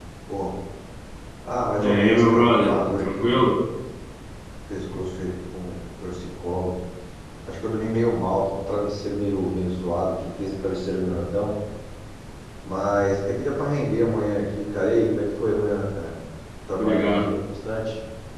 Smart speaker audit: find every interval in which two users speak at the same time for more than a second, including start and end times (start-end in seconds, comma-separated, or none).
1.8-3.5